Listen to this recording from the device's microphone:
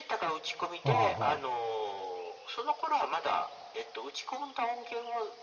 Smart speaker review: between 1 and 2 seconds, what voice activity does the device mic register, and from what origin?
both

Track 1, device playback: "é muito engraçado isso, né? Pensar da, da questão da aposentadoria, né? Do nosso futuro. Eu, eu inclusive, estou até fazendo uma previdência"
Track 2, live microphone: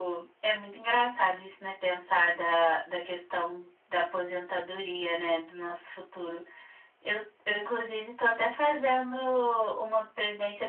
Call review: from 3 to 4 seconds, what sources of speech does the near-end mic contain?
echo only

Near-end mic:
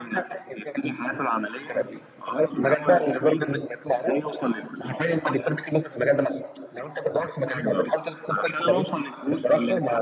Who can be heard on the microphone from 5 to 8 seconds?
echo only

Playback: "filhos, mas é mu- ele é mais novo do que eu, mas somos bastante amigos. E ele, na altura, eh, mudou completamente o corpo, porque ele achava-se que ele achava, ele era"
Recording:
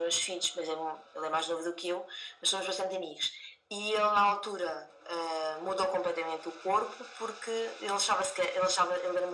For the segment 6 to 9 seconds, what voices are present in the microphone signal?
echo only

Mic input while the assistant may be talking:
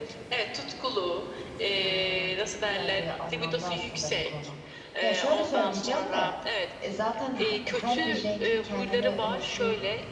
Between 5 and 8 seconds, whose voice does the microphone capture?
both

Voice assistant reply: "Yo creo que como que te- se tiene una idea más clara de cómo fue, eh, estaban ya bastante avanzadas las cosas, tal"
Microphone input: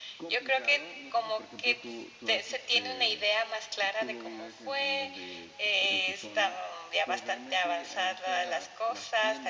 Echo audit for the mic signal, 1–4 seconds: both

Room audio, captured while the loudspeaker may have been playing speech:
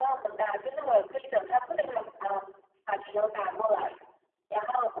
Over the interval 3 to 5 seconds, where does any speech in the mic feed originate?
echo only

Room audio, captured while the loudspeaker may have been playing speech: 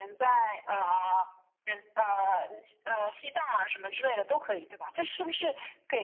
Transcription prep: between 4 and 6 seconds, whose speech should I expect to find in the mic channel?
echo only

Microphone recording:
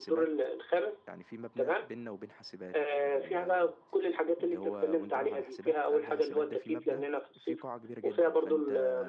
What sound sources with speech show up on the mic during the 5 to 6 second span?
both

